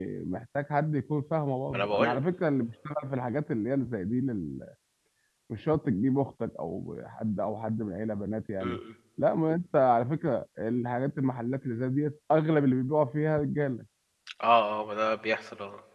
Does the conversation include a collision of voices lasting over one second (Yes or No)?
No